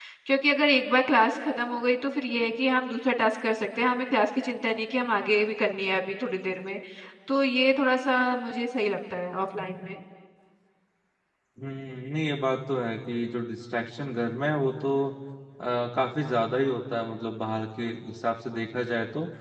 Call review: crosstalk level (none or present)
none